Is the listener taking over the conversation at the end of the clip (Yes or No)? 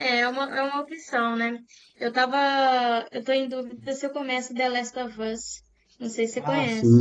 Yes